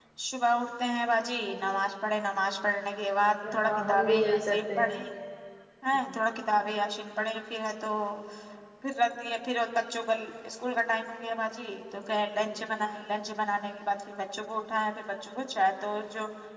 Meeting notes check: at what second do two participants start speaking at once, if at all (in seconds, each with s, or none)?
3.6 s